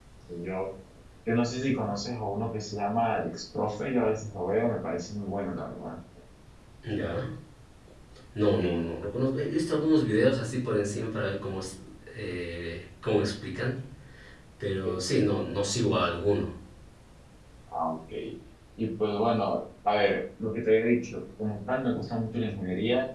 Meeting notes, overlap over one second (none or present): none